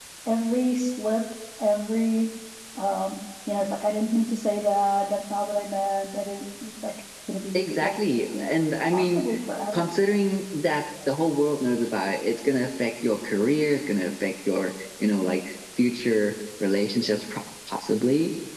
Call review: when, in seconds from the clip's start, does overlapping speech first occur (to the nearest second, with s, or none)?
8 s